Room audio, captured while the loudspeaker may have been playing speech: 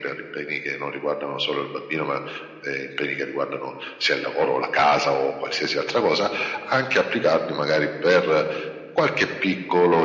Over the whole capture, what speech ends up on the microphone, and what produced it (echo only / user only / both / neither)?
echo only